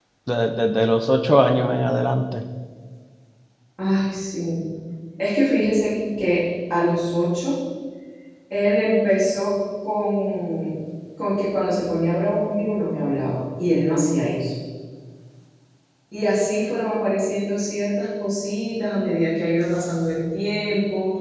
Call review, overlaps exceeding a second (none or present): none